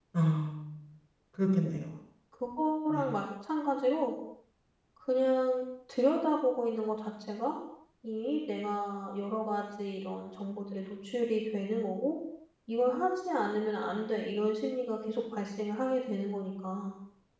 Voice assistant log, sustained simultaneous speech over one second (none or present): none